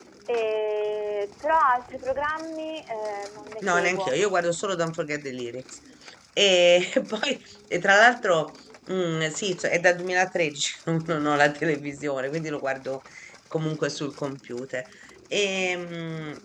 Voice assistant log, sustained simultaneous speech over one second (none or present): none